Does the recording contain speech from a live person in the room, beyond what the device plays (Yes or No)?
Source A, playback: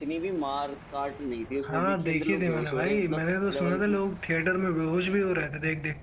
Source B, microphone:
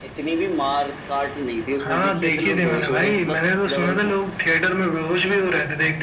No